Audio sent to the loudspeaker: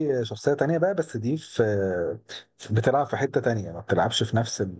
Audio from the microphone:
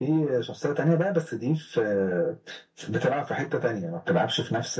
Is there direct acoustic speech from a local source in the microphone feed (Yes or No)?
No